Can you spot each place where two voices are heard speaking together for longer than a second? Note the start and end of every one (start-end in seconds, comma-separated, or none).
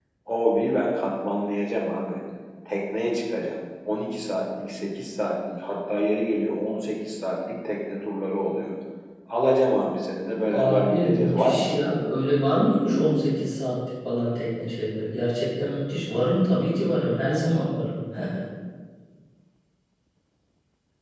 10.4-11.8